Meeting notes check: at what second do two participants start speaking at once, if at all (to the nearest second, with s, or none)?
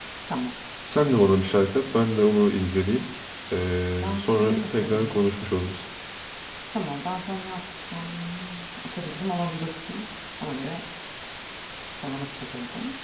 4 s